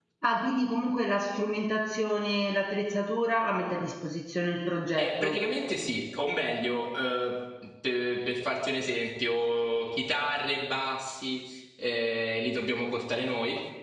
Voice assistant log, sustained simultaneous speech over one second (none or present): none